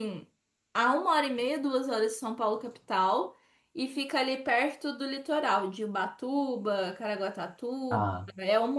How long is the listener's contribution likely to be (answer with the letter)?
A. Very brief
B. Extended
A